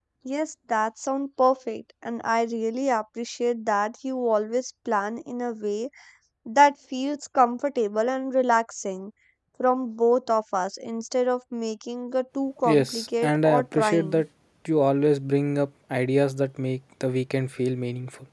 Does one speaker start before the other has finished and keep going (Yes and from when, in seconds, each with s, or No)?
Yes, from 12.7 s